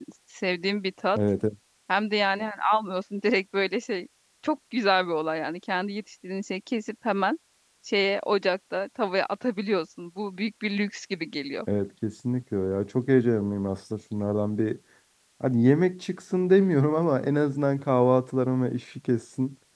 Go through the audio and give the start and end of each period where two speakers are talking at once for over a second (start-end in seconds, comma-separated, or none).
none